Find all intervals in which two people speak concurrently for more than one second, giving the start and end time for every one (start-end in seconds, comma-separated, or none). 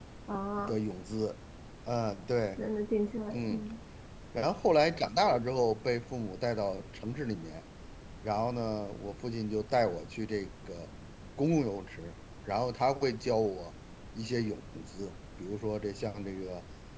none